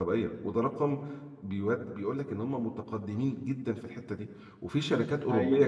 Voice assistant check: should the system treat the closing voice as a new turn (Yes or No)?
No